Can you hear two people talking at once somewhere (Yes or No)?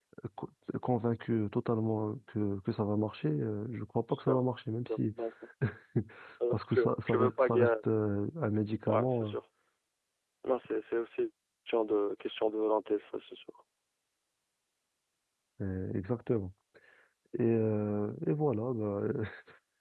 Yes